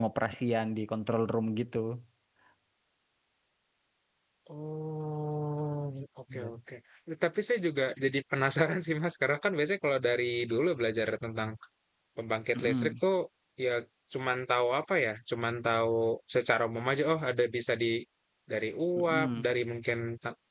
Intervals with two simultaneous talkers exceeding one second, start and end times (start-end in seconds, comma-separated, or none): none